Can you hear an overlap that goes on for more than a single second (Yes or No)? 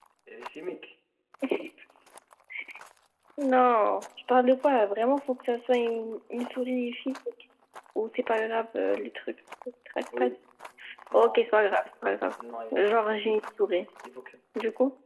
No